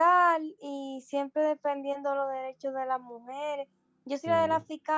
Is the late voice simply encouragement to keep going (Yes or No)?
Yes